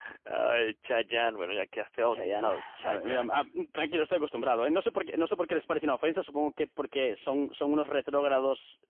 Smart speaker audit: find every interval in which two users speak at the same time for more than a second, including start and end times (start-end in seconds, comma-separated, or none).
2.1-3.3